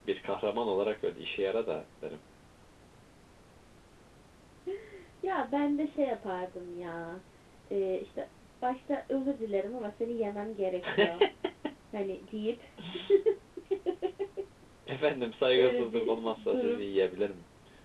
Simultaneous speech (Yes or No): Yes